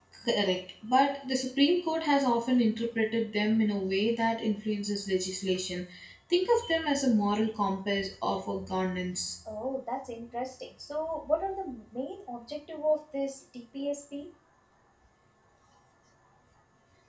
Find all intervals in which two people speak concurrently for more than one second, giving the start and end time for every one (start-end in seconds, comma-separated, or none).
none